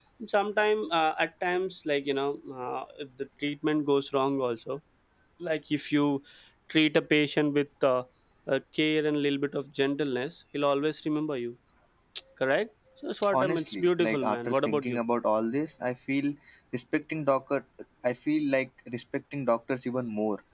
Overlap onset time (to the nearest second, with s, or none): 13 s